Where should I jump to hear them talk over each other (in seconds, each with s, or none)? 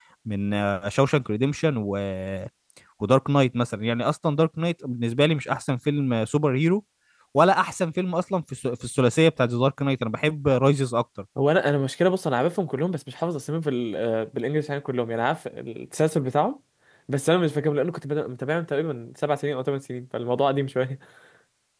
none